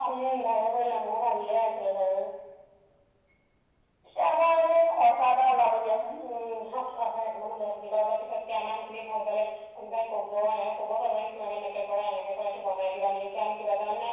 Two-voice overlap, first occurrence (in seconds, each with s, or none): none